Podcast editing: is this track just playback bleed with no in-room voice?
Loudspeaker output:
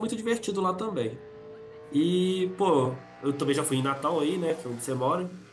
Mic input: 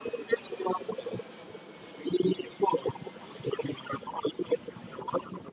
Yes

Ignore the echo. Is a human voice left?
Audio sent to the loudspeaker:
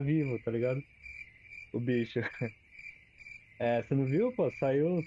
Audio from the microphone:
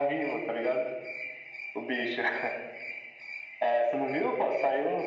No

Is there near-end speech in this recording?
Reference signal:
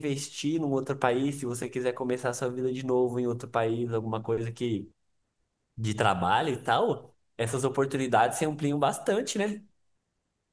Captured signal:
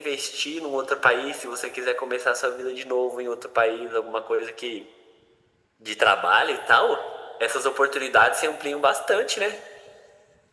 No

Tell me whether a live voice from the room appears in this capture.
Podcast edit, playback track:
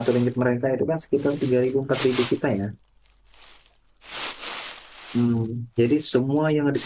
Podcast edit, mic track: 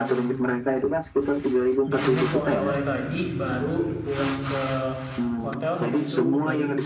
Yes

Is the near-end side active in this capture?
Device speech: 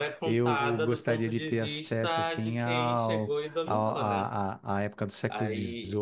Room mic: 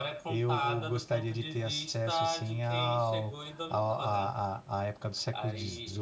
No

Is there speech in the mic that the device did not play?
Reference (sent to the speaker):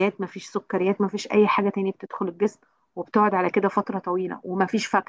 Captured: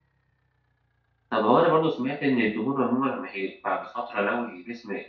Yes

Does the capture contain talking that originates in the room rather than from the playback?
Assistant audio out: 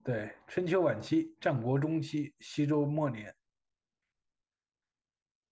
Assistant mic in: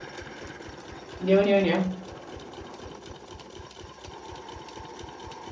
Yes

